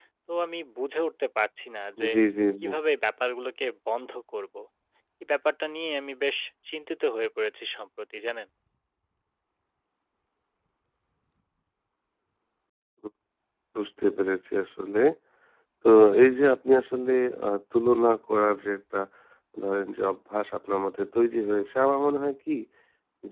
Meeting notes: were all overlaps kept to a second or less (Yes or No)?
Yes